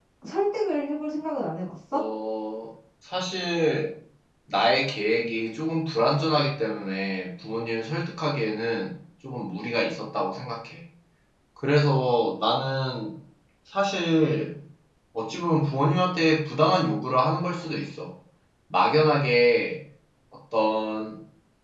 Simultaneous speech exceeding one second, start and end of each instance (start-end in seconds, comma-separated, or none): none